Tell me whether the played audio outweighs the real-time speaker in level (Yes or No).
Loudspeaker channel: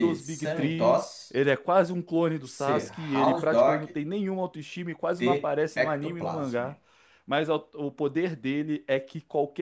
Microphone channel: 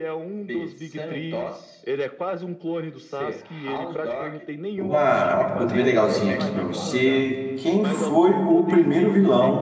No